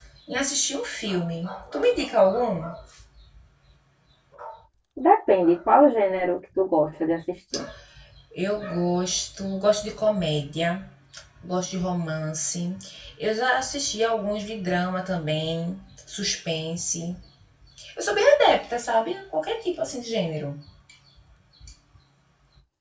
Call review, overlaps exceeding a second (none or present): none